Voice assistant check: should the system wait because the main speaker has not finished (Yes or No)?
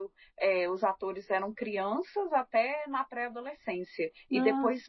Yes